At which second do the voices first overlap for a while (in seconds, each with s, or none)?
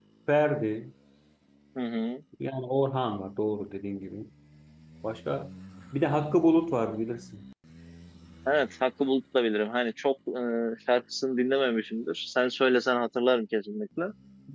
none